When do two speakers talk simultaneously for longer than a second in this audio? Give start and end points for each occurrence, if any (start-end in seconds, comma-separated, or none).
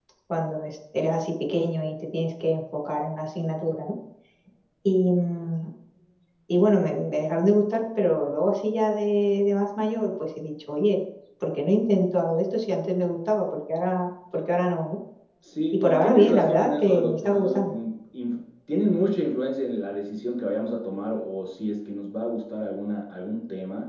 15.7-17.8